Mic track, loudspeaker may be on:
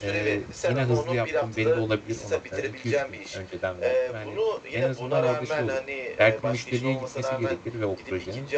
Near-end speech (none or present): present